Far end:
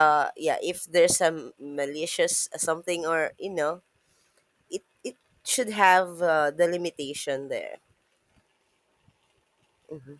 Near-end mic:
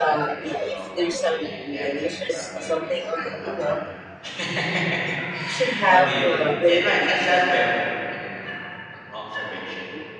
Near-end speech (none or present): present